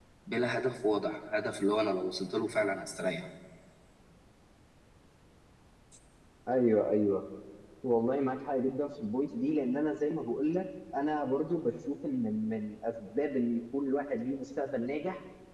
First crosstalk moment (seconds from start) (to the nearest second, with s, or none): none